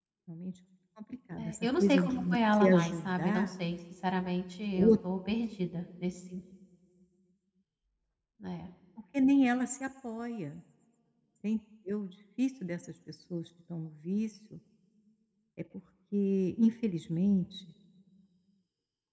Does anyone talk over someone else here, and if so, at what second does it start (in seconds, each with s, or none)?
1.4 s